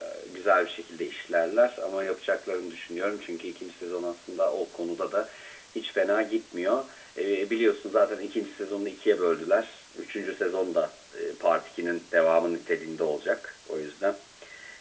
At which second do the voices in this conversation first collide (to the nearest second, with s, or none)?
none